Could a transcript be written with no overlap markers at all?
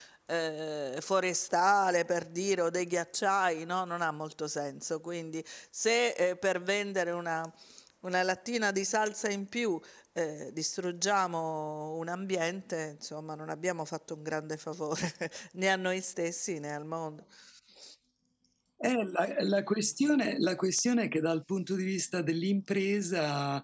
Yes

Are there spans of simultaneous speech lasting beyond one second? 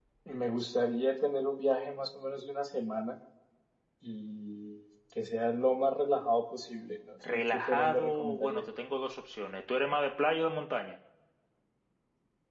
Yes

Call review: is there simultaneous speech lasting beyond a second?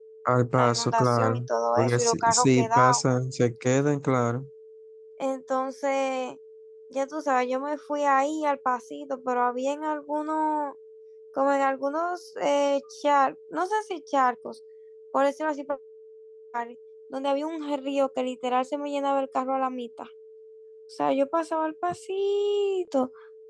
Yes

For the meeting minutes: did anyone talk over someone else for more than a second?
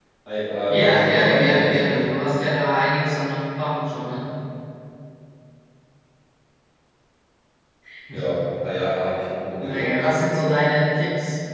Yes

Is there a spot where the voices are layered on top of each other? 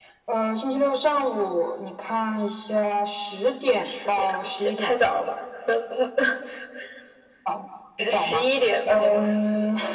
Yes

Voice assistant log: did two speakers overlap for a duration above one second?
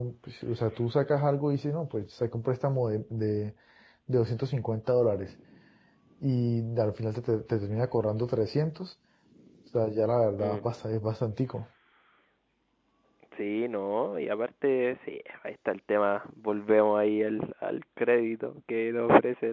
No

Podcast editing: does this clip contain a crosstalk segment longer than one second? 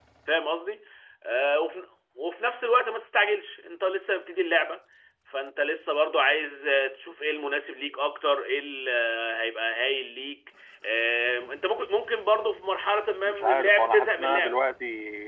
Yes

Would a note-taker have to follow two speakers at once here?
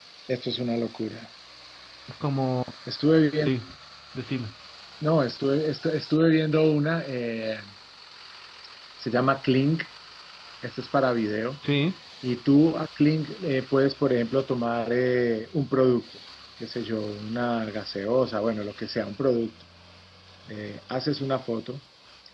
No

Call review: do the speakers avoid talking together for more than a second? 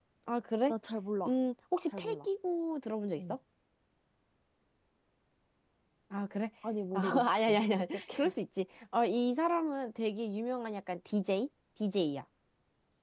No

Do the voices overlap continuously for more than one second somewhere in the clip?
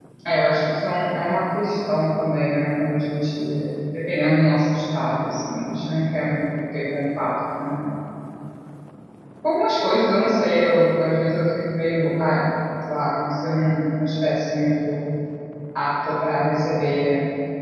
No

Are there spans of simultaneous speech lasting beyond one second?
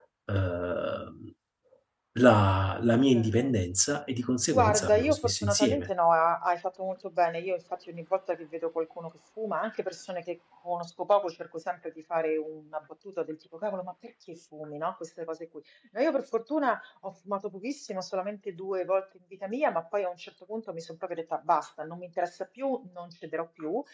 Yes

